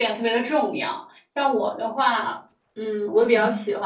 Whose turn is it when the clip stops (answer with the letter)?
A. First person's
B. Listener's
A